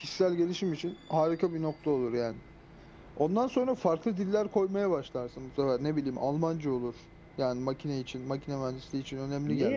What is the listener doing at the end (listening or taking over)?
taking over